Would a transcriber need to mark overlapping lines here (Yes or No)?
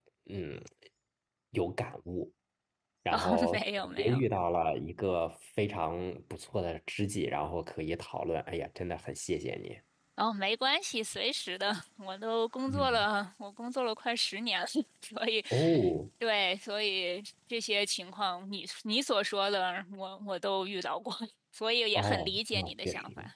Yes